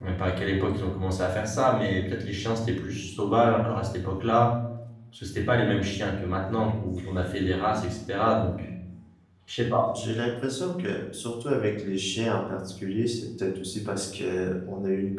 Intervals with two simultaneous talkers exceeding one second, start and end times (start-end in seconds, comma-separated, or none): none